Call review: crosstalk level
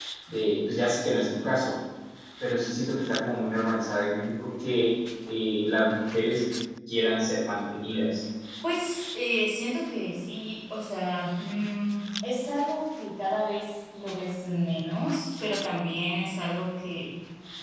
none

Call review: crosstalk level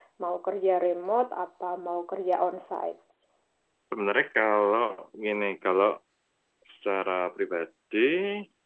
none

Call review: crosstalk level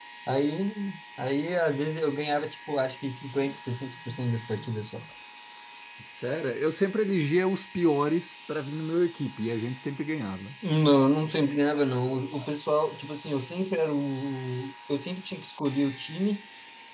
none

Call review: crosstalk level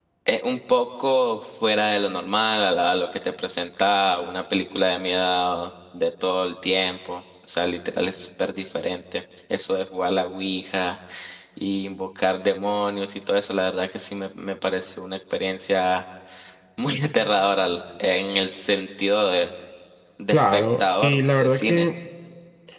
present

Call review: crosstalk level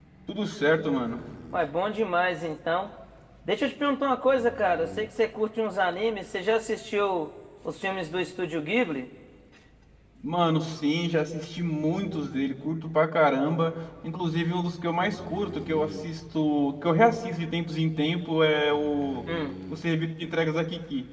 none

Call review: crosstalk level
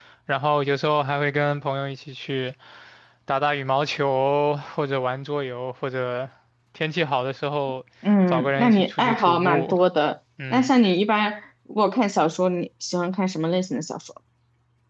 present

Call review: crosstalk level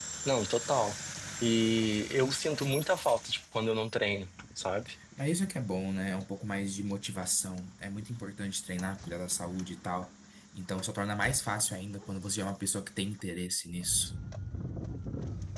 none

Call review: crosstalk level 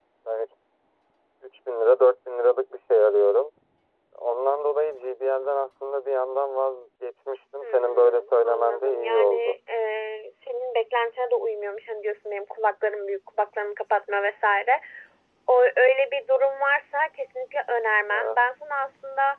present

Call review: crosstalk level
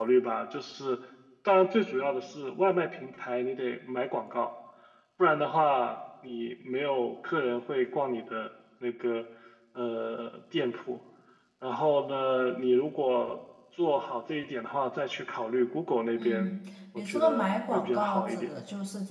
present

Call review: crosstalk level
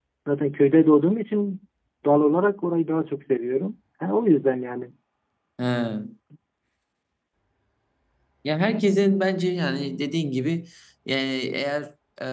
none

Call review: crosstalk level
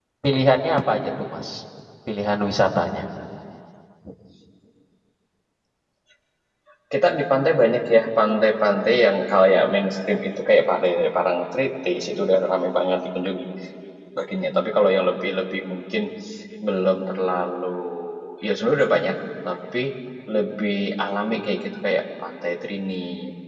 none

